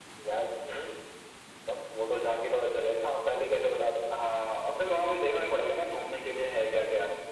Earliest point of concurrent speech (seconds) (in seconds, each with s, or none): none